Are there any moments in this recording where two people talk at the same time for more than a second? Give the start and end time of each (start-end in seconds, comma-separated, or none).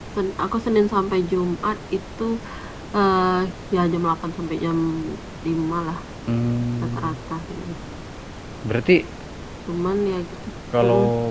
none